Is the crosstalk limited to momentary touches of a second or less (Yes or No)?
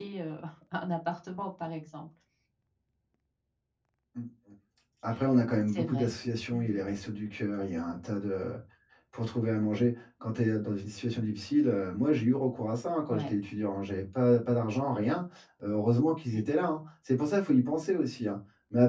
Yes